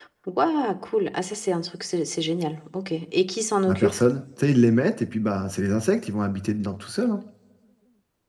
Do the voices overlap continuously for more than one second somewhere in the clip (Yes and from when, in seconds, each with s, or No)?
No